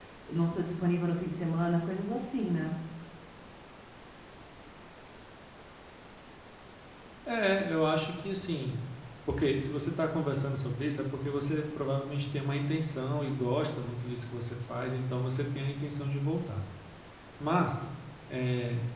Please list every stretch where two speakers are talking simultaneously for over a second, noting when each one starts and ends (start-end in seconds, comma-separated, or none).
none